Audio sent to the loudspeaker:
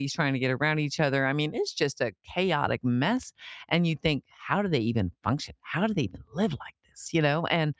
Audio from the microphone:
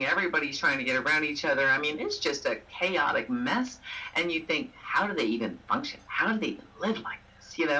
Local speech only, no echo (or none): none